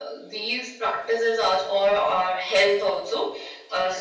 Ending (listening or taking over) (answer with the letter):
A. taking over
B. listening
B